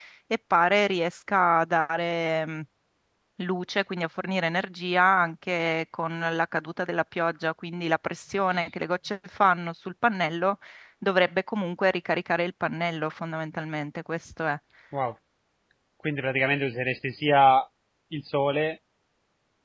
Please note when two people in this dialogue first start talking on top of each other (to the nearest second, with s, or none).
none